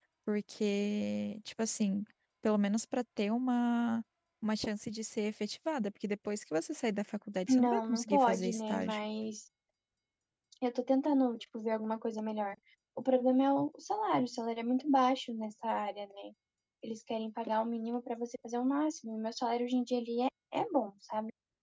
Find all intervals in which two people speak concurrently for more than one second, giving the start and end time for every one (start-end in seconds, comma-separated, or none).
7.5-9.1